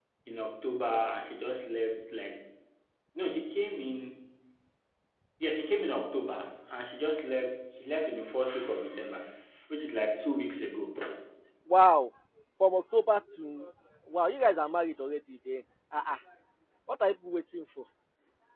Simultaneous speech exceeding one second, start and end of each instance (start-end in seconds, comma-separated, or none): none